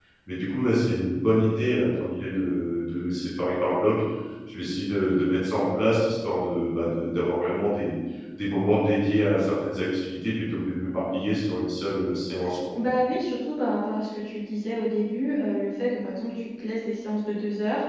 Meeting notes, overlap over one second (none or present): none